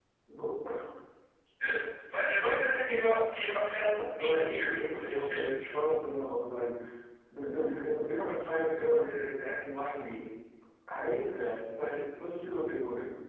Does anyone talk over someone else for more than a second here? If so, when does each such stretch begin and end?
4.2-5.4

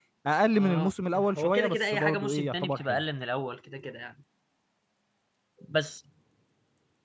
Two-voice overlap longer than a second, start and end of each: 0.5-3.0

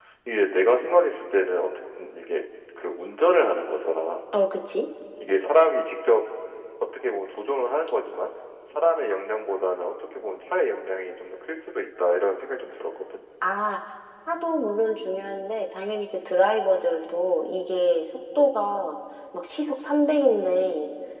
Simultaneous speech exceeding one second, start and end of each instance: none

